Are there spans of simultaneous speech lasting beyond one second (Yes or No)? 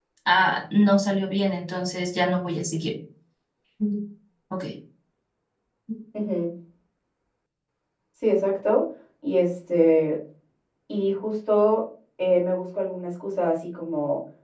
No